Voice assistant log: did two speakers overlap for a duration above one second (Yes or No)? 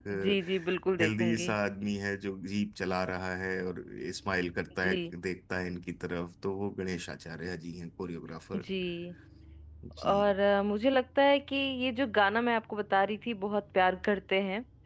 No